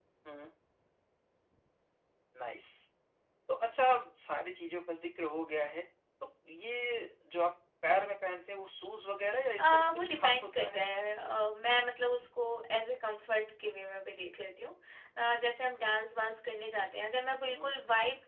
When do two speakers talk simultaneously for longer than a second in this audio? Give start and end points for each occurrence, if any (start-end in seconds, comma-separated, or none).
9.6-10.8